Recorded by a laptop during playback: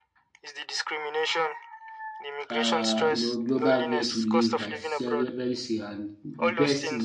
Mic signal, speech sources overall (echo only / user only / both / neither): both